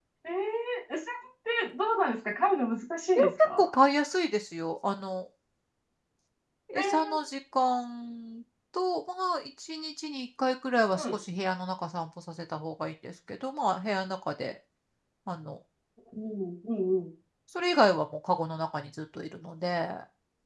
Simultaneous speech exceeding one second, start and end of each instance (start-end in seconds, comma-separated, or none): none